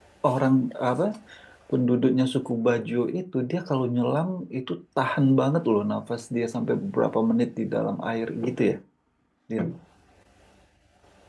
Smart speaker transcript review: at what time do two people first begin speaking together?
none

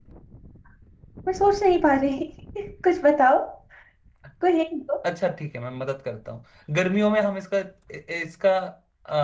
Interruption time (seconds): none

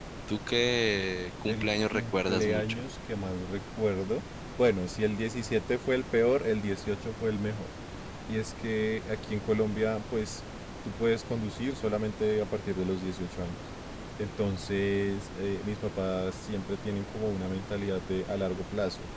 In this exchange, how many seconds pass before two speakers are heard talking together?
1.5 s

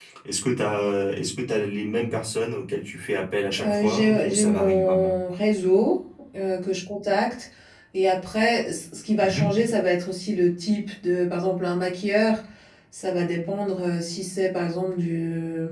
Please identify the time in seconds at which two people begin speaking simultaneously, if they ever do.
3.6 s

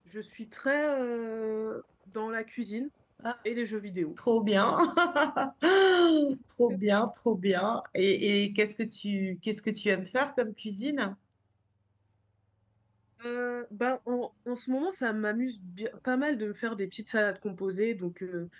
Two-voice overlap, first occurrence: none

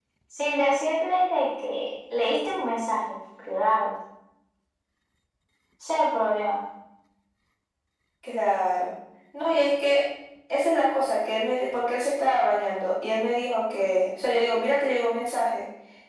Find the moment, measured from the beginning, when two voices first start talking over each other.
none

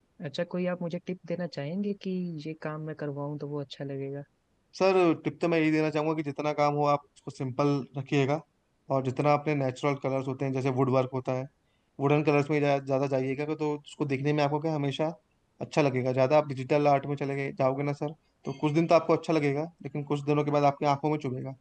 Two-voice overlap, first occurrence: none

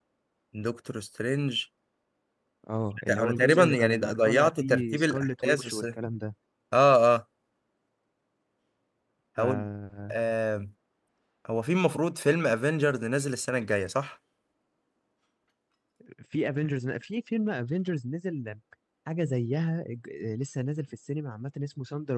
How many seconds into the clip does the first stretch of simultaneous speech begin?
3.1 s

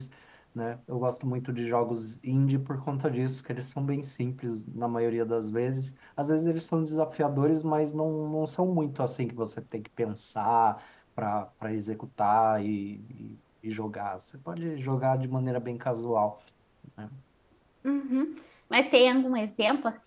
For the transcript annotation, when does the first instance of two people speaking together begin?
none

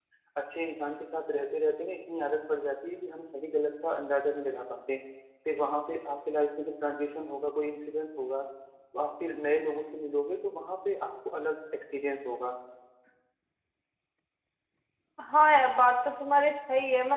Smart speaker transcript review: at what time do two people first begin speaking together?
none

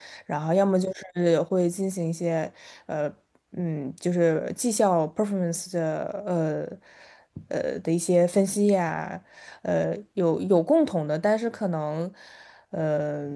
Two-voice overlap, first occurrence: none

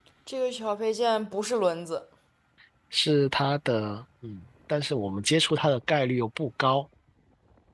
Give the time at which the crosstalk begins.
none

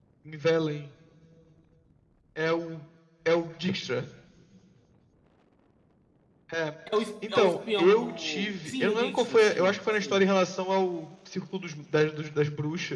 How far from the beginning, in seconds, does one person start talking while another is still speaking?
7.3 s

